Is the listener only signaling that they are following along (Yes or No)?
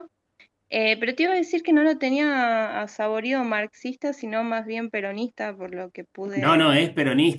No